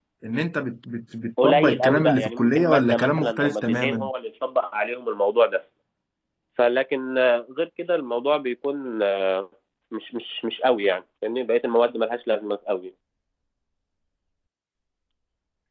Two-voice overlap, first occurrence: 1.4 s

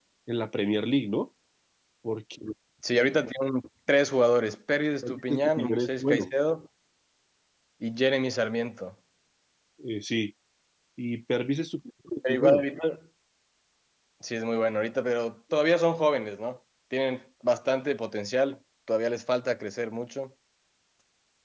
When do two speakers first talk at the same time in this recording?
5.0 s

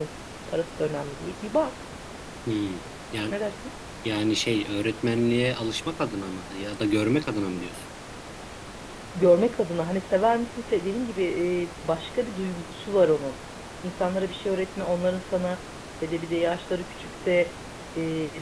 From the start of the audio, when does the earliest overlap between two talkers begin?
none

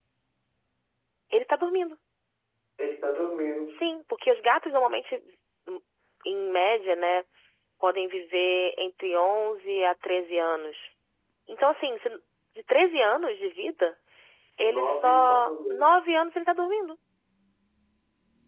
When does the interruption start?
14.6 s

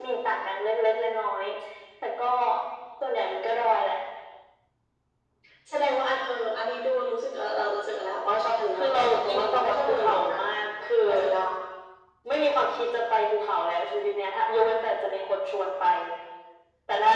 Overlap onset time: 8.7 s

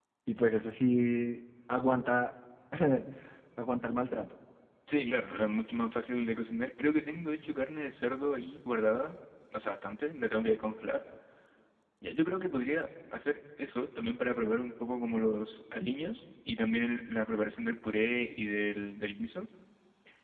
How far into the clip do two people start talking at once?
none

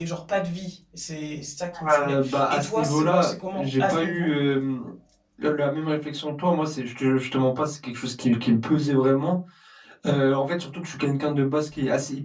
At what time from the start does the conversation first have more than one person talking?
1.7 s

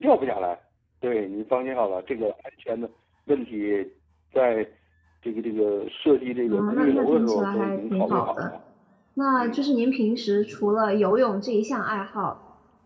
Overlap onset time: 6.5 s

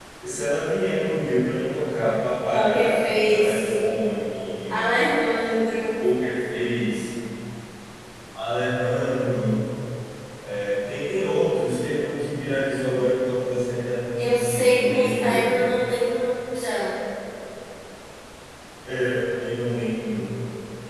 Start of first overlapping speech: 2.5 s

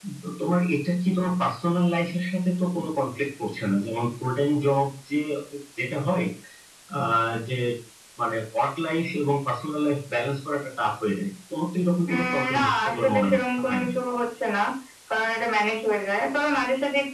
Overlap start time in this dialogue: 12.1 s

